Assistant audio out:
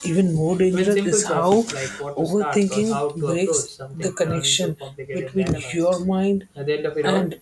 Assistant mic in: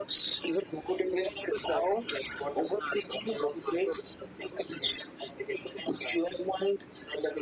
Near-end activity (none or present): none